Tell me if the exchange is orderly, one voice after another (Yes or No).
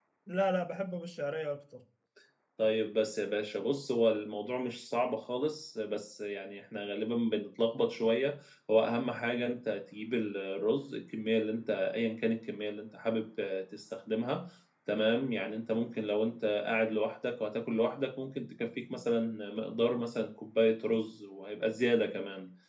Yes